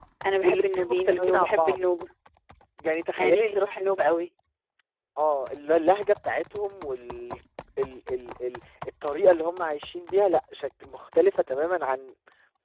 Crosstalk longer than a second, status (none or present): present